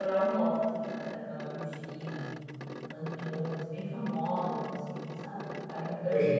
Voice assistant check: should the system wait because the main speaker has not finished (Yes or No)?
No